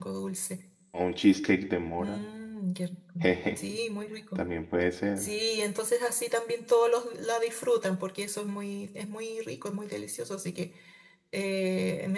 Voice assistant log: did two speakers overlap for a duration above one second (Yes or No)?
No